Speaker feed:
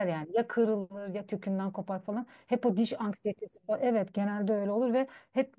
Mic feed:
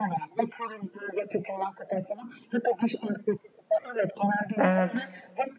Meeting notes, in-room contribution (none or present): present